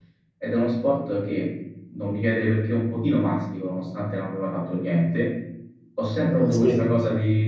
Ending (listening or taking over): listening